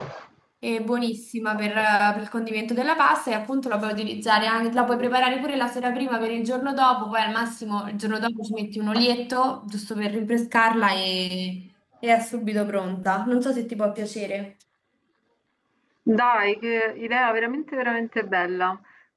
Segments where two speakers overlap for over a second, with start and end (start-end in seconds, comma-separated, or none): none